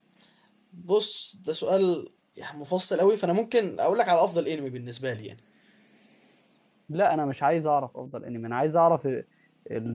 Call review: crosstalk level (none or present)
none